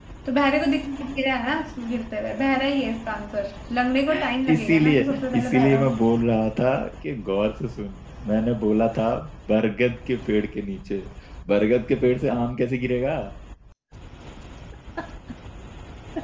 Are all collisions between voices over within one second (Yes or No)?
No